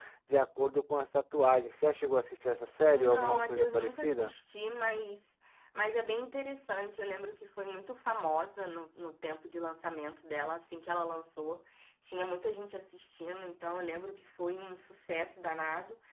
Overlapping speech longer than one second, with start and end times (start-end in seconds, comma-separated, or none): 2.9-4.3